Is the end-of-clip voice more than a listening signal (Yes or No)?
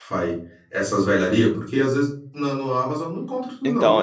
Yes